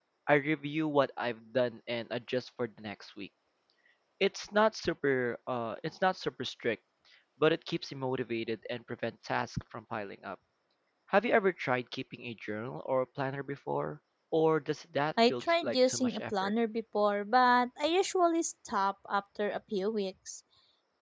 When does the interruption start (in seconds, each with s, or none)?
15.2 s